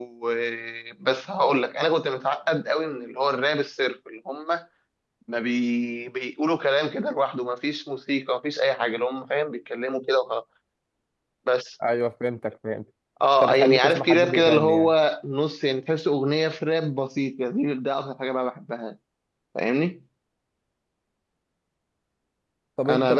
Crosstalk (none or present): present